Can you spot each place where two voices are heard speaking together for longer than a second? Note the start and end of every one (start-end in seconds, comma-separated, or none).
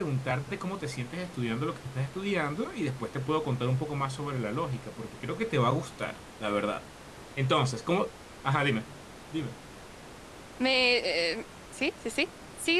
none